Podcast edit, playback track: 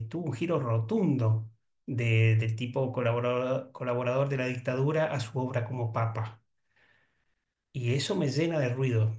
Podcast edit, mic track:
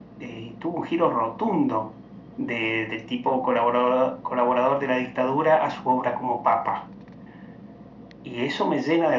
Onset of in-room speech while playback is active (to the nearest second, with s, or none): none